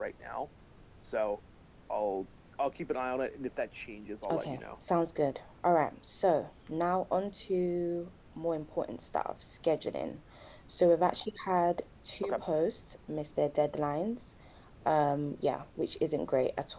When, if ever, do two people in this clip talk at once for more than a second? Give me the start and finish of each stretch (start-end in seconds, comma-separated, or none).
none